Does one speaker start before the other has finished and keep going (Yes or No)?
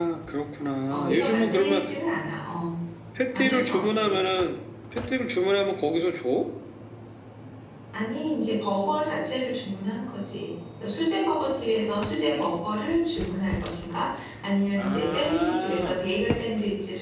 Yes